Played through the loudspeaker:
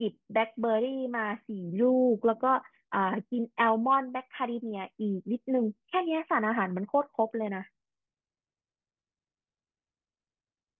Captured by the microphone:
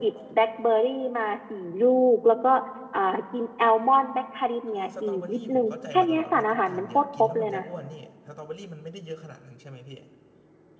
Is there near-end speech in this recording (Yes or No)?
Yes